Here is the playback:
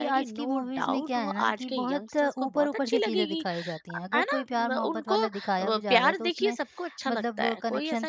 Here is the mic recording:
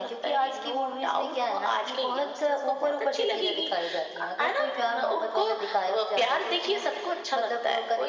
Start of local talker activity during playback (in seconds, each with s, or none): none